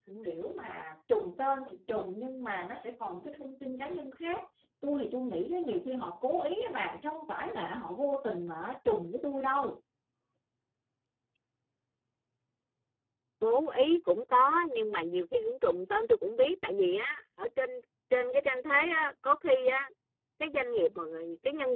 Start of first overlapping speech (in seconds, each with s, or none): none